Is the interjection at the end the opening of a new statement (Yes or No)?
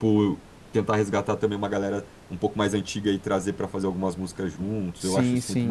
Yes